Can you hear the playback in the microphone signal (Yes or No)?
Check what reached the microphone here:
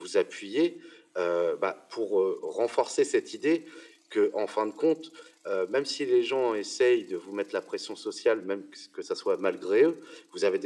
Yes